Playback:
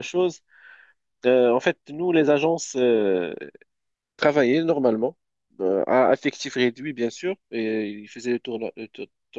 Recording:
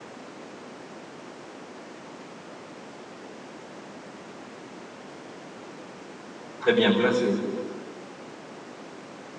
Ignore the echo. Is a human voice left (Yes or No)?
Yes